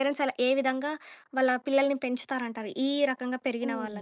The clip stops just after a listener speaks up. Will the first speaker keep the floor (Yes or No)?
No